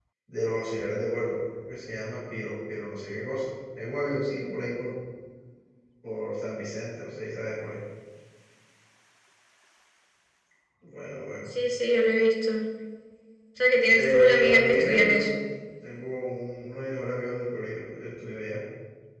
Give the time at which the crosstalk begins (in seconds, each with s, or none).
13.9 s